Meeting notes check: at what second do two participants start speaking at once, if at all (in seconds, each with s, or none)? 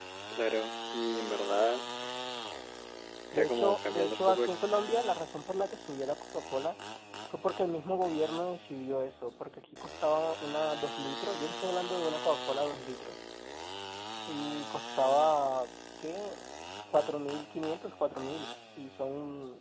3.3 s